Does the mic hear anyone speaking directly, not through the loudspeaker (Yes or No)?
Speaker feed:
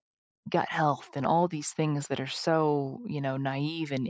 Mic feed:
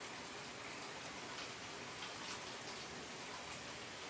No